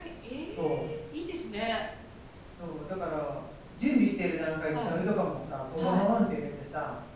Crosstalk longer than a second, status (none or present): none